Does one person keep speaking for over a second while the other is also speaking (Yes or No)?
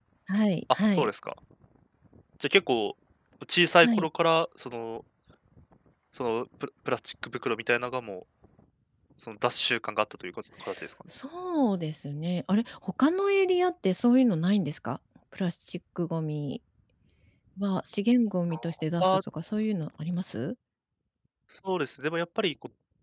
No